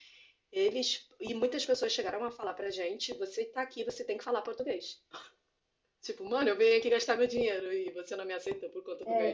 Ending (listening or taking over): taking over